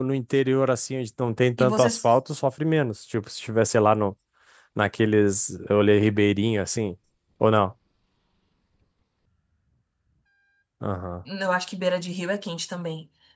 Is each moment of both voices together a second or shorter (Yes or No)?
Yes